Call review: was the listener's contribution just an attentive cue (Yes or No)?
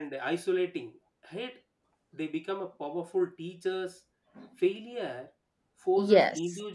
Yes